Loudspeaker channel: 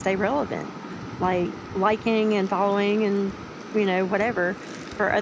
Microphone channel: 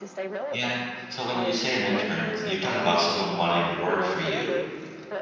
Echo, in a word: present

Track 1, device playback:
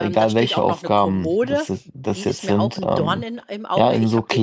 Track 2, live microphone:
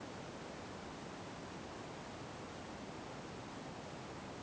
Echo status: none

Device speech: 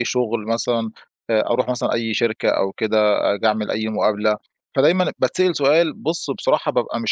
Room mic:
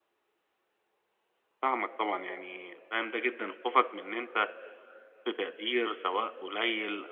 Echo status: none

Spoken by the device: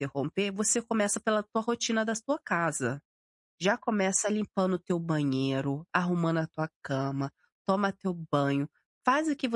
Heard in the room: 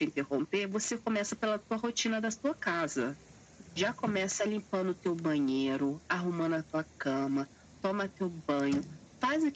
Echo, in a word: present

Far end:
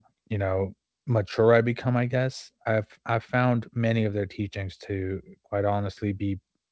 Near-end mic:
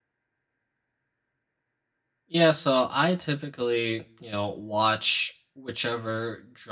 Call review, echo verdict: none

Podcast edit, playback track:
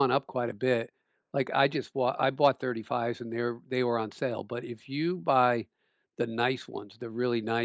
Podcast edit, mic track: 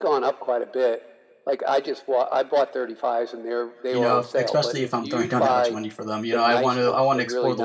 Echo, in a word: present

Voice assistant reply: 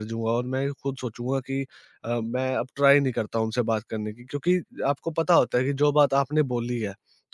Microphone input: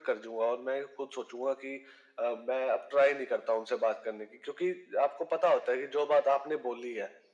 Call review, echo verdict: present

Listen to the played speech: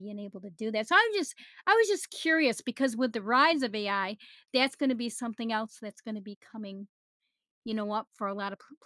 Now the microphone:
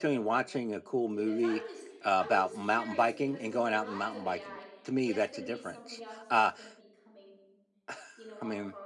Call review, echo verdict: present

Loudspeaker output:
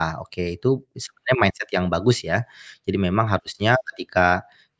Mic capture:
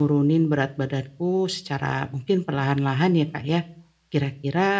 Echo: none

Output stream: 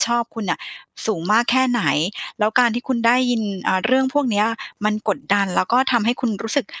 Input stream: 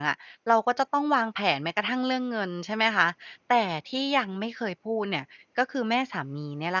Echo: none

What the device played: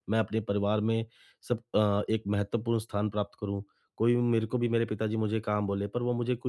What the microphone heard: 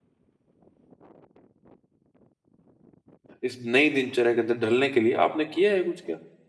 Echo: none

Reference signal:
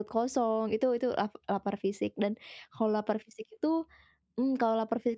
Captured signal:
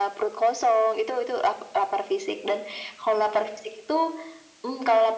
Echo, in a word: present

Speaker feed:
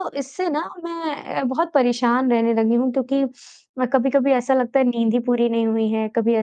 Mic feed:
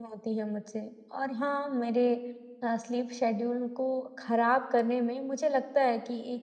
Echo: none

